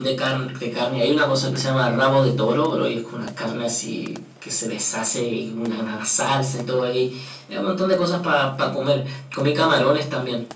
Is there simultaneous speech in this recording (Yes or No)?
No